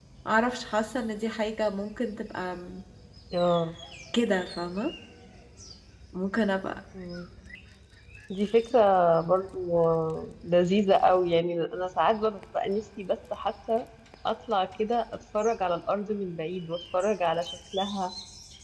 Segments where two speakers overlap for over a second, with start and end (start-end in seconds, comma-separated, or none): none